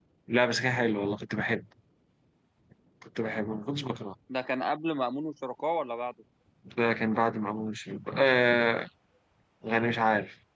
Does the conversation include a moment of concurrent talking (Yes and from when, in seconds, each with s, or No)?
No